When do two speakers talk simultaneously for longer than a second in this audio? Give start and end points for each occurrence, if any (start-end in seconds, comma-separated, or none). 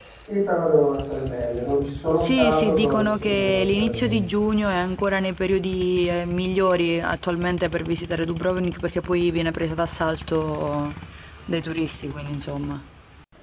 2.2-4.2